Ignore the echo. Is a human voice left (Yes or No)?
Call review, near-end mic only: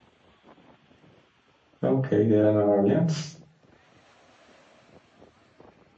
Yes